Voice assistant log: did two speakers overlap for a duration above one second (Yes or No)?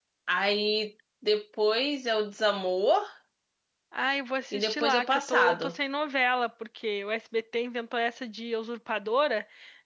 Yes